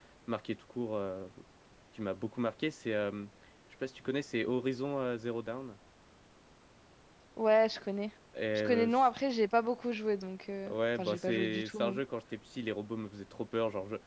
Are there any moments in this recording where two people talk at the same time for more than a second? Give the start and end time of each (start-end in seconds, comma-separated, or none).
10.7-12.0